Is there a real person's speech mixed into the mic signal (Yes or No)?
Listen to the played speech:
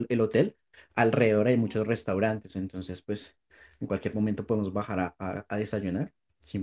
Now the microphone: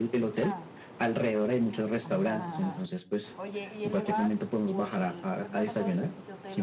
Yes